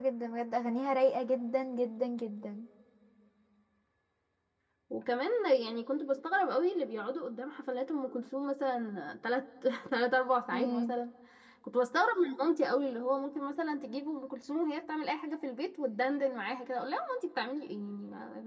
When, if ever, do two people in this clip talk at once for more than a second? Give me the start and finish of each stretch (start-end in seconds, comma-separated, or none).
none